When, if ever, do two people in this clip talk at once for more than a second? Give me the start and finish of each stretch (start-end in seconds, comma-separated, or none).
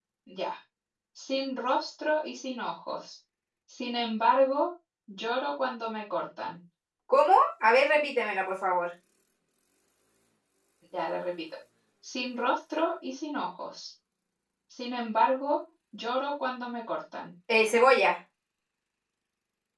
none